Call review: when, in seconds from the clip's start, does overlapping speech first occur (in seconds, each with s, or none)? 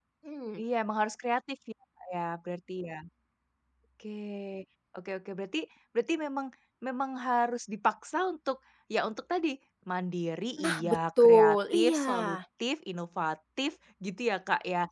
10.6 s